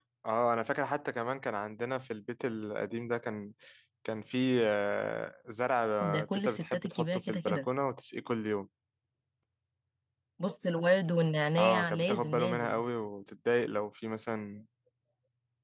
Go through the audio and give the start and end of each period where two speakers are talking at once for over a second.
6.0-7.7, 11.6-12.8

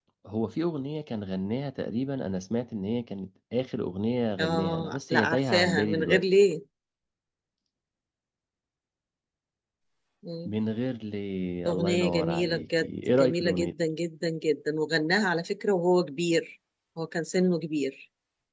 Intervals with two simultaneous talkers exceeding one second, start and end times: 4.4-6.2, 11.7-13.7

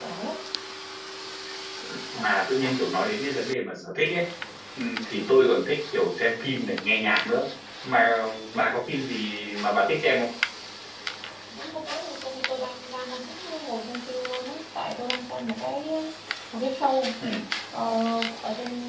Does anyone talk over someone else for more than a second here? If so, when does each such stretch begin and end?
none

